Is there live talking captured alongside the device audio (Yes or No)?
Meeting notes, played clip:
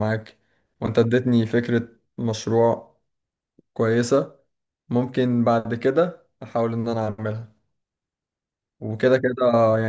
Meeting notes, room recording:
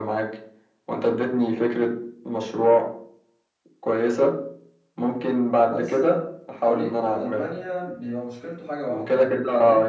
Yes